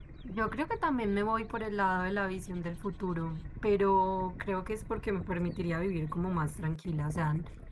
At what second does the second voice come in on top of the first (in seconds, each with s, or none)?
none